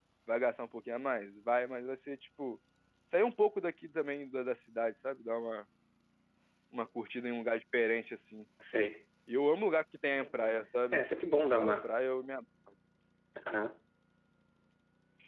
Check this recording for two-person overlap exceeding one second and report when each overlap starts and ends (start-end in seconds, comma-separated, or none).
none